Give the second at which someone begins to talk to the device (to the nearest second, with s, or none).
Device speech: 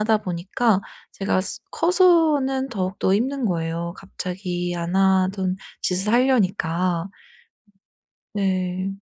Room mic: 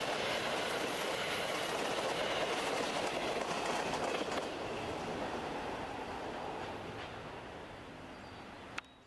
none